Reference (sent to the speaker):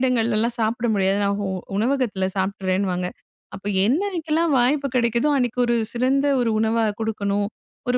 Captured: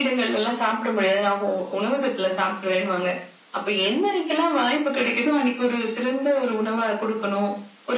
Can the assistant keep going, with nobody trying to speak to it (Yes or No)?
Yes